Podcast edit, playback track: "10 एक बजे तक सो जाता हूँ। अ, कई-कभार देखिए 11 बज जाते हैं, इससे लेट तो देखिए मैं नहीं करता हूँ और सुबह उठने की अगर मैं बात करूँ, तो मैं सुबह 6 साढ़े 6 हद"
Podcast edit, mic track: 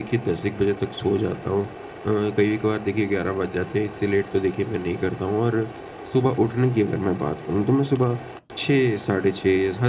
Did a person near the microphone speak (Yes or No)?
No